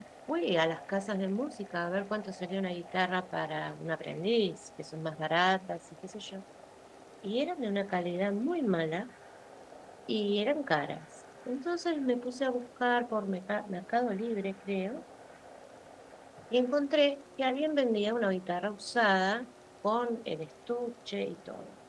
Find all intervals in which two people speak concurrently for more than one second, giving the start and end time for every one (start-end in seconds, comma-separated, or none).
none